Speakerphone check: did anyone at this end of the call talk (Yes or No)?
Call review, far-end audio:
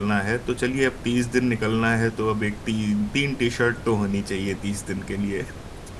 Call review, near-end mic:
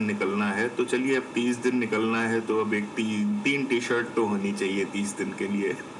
No